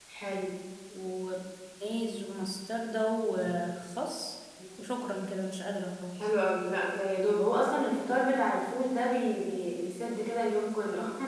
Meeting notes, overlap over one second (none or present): none